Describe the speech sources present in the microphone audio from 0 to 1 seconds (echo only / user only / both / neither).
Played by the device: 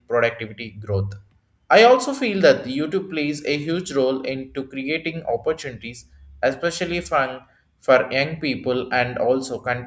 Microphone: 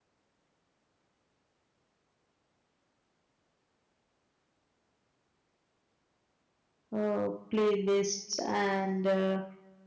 neither